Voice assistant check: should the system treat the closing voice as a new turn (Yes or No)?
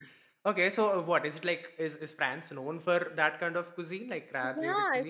Yes